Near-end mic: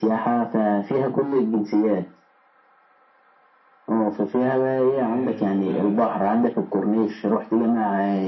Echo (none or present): present